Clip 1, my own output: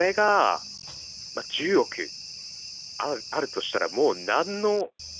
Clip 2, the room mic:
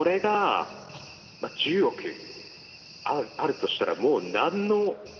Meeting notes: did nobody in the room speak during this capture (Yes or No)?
Yes